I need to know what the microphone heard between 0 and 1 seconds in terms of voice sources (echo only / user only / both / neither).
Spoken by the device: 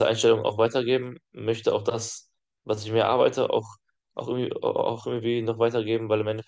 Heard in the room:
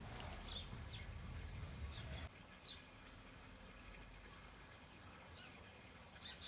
neither